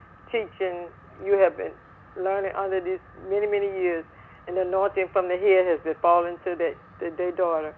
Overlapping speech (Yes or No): No